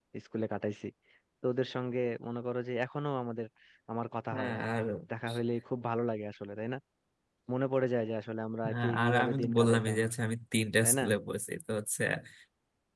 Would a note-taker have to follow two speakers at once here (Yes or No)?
Yes